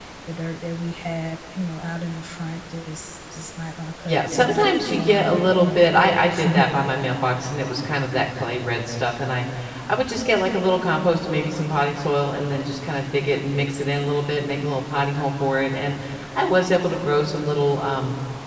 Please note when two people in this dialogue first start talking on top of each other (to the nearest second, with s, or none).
4 s